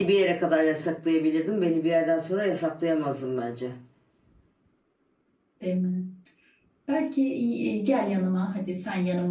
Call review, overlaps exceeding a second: none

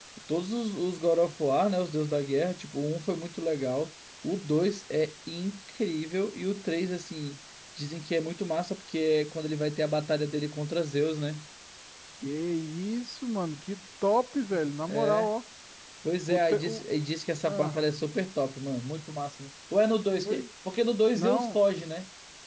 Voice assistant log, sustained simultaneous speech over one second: none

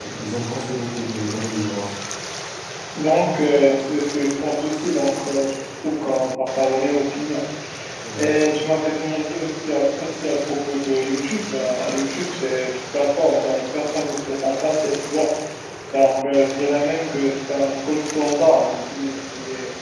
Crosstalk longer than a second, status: none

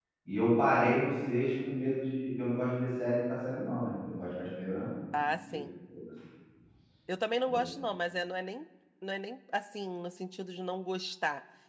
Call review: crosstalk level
none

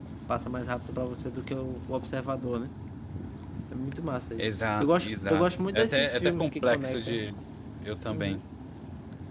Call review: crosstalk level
present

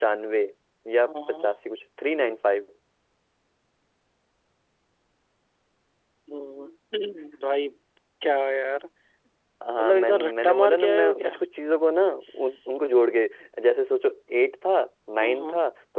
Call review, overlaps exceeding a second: present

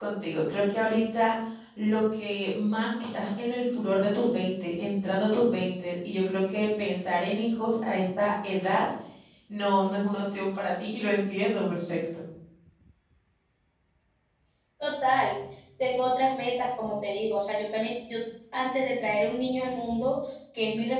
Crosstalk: none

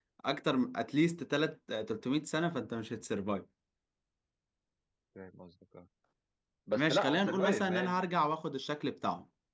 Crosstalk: present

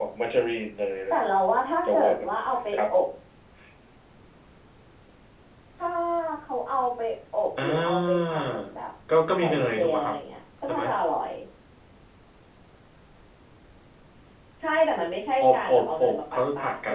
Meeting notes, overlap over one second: present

